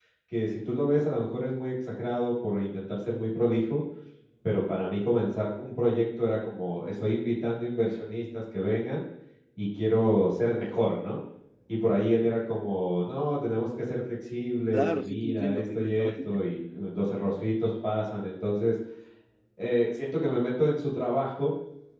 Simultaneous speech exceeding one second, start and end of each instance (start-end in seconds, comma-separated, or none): 14.7-16.4